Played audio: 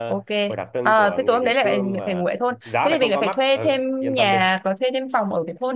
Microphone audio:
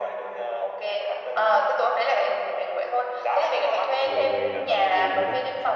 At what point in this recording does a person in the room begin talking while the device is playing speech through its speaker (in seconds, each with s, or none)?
4.0 s